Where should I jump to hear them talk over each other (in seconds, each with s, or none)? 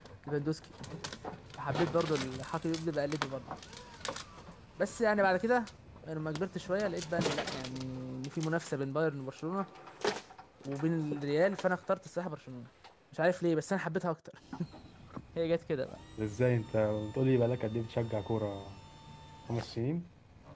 none